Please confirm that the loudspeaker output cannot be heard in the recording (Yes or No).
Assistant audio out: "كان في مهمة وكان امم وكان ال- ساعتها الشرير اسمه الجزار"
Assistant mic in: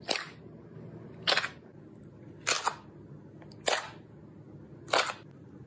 Yes